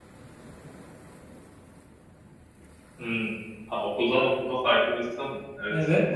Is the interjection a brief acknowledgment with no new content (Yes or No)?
No